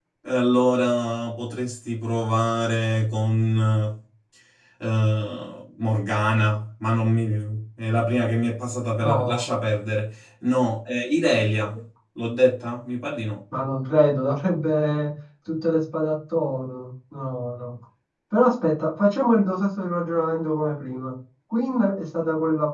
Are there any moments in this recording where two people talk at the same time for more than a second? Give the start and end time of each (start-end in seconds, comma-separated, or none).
none